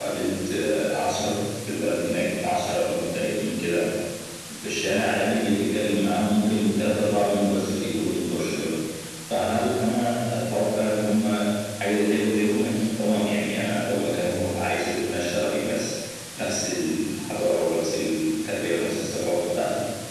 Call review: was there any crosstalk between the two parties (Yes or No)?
No